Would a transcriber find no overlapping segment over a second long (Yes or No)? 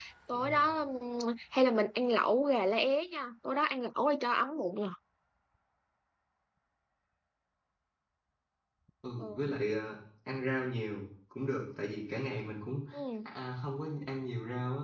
Yes